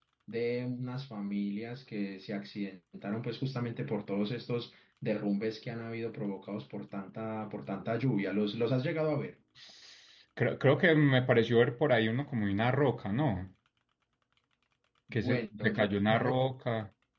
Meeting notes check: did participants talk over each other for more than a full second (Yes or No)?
Yes